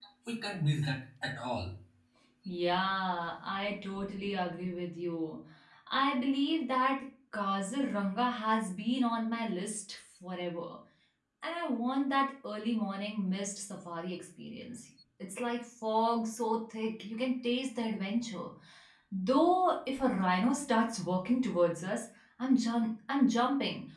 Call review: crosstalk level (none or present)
none